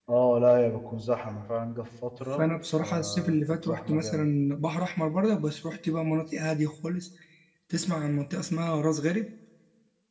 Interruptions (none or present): present